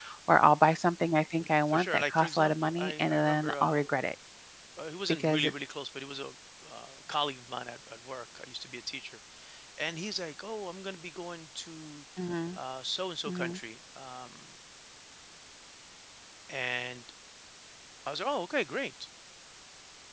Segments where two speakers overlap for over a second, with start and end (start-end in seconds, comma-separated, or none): 1.7-3.8